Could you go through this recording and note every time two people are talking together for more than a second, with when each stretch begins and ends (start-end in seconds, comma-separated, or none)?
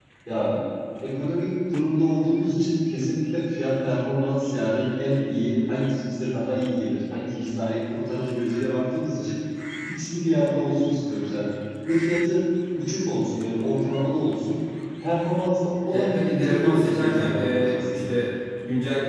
15.9-18.1